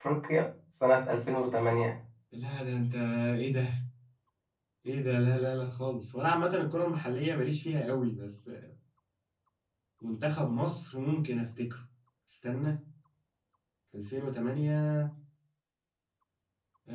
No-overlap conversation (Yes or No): Yes